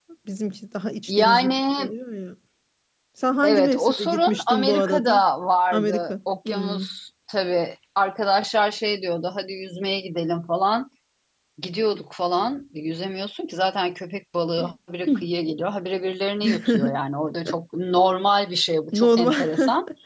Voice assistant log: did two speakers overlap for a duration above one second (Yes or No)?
Yes